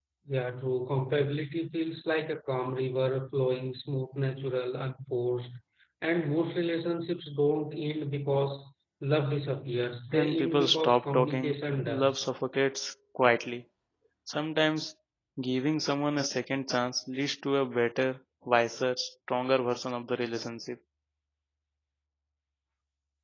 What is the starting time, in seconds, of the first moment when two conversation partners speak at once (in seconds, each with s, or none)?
10.1 s